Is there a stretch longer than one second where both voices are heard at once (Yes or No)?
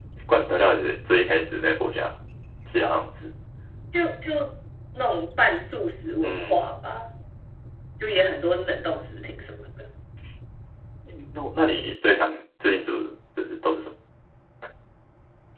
No